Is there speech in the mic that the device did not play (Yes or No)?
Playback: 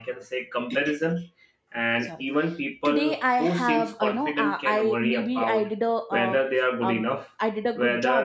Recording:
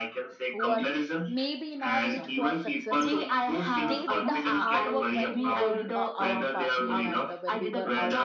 Yes